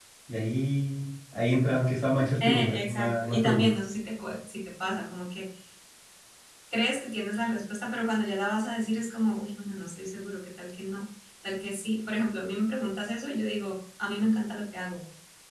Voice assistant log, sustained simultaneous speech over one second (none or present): present